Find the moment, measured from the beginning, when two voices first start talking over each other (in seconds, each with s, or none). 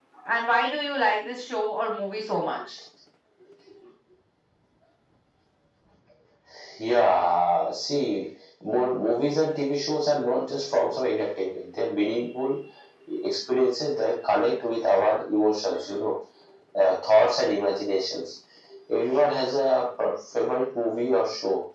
none